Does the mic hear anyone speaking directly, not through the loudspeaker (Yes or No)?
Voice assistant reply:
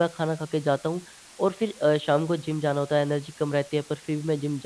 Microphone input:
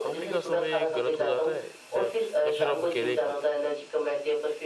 Yes